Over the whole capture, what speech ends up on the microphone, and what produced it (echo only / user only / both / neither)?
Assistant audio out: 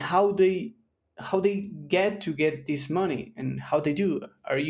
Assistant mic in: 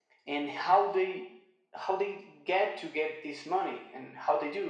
echo only